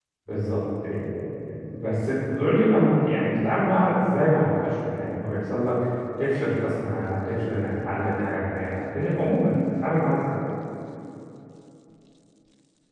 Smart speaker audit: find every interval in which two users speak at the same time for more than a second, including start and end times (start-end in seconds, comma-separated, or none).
none